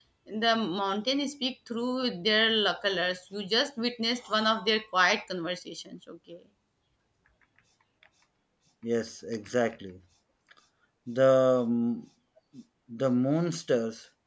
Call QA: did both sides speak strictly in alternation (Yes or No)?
Yes